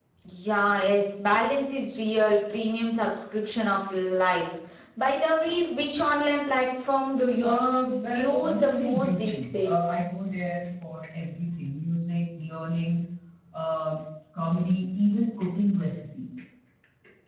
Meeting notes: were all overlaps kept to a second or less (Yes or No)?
No